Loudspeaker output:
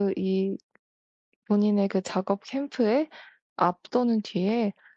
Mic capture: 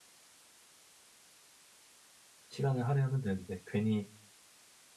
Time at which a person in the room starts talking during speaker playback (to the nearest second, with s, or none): 3 s